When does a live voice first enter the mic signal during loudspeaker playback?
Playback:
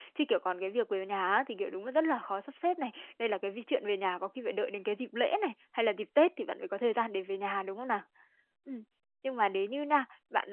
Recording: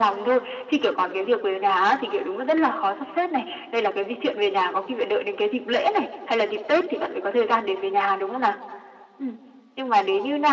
none

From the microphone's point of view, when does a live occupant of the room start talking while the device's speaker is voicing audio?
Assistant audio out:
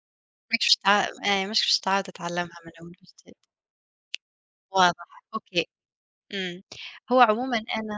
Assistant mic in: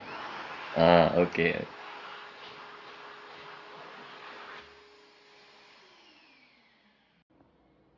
0.8 s

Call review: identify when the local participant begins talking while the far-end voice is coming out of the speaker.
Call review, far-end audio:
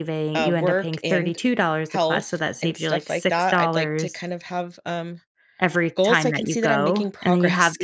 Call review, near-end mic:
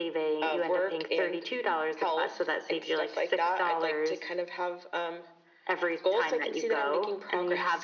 none

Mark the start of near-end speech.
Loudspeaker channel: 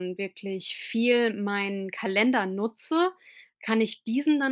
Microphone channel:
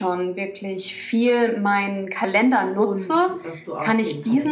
2.7 s

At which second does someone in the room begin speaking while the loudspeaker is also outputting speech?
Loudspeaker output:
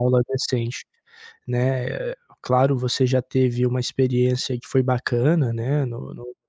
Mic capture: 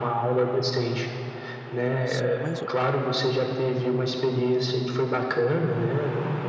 2.0 s

